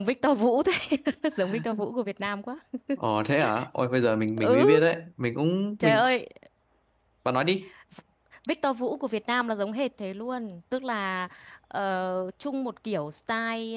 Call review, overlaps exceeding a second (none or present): none